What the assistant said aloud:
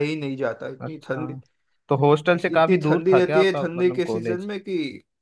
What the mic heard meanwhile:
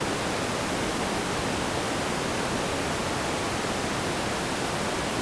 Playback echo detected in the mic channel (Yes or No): No